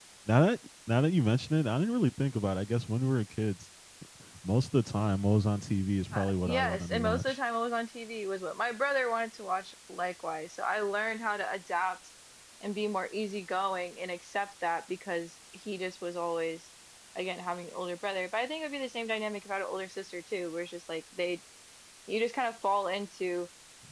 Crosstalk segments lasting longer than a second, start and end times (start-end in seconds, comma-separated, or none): 6.1-7.3